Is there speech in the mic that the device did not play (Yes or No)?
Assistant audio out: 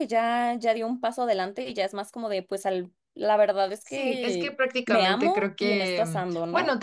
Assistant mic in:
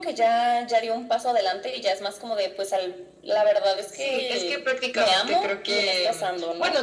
No